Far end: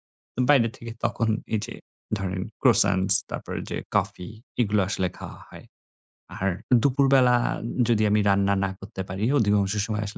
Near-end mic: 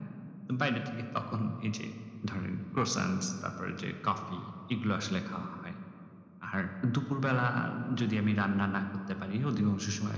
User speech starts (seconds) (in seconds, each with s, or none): none